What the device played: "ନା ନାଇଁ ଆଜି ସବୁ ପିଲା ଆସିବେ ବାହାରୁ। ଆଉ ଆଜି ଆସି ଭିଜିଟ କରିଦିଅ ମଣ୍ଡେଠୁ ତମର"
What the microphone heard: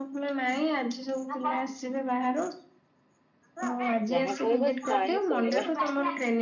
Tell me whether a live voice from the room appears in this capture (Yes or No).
Yes